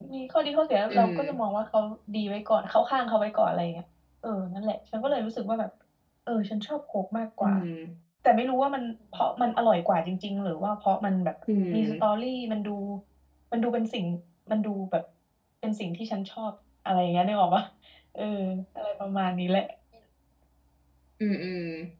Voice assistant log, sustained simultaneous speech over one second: none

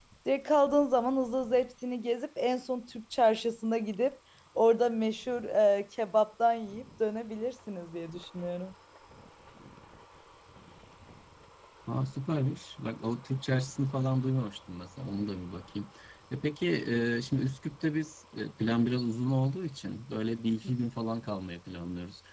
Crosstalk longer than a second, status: none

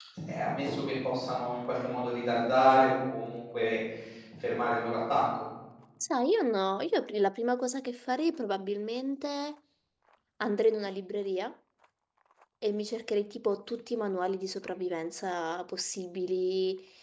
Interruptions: none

